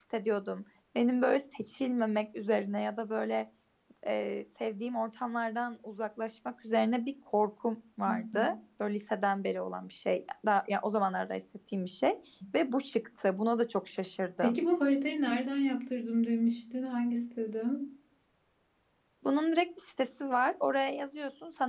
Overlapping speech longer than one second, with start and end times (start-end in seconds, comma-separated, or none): none